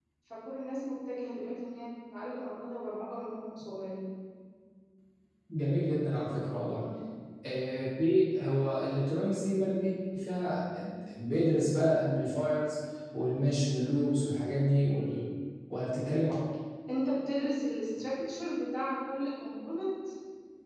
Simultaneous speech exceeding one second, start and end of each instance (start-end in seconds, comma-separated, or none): none